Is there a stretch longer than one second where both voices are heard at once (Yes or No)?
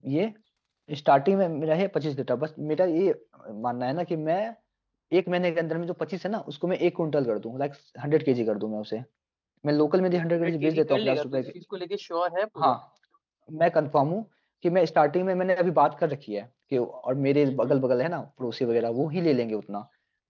Yes